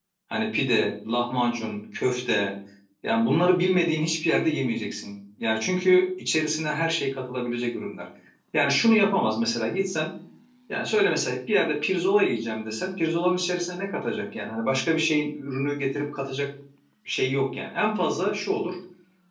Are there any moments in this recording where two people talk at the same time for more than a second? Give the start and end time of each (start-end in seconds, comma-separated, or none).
none